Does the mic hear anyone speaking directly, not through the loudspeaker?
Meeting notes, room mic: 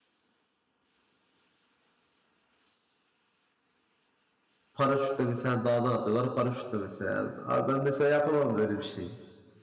Yes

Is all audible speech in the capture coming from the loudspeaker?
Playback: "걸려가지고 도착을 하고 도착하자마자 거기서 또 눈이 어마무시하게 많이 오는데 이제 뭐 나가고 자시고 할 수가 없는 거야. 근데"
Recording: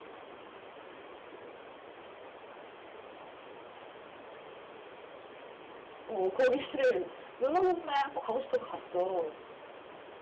No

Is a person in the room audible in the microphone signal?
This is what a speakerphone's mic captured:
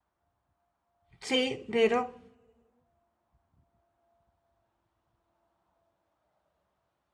Yes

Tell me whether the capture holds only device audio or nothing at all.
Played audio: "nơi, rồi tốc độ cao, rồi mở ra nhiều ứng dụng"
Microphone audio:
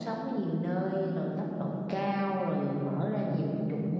Yes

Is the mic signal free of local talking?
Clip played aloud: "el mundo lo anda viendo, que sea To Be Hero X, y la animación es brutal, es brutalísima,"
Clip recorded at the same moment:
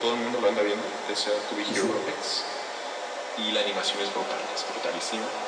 No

